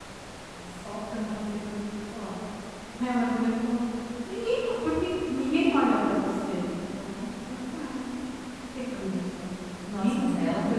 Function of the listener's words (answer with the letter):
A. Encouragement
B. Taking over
B